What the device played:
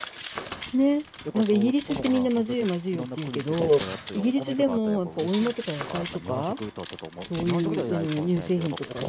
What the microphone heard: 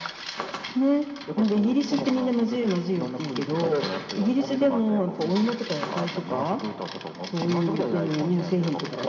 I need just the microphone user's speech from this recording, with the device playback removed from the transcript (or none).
none